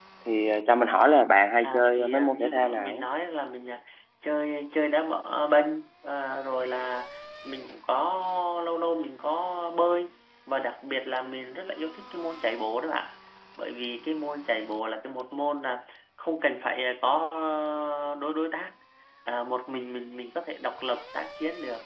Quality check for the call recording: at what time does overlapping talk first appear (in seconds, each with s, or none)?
1.6 s